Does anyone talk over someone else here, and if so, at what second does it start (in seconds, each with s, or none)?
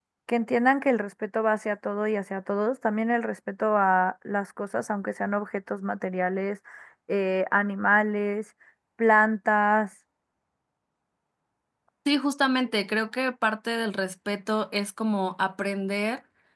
none